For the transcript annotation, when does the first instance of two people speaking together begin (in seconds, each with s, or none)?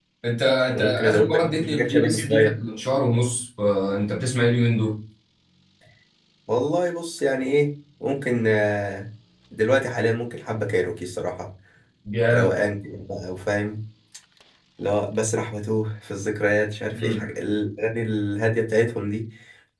0.7 s